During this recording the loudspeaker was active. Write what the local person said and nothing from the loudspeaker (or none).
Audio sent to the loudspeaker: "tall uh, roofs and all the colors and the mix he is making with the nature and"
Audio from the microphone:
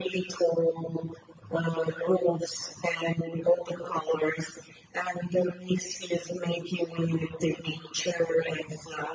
none